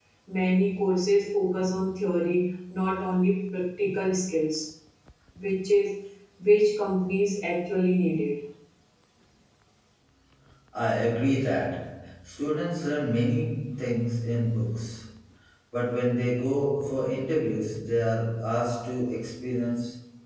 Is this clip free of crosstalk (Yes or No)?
Yes